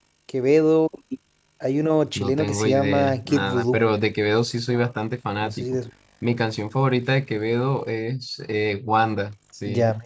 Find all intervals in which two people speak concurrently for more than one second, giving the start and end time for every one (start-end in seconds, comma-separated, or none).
2.1-3.8